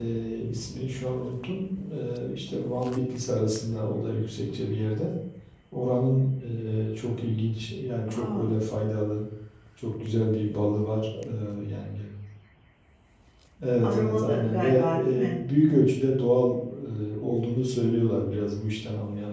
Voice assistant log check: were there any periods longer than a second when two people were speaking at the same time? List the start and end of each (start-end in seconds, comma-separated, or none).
13.8-15.4